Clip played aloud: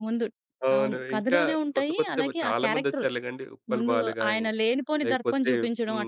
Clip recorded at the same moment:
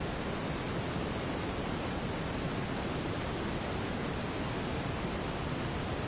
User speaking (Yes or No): No